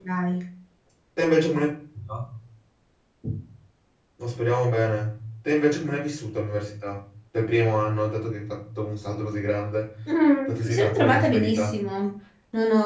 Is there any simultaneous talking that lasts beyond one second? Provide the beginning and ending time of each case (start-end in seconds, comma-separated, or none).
10.5-11.8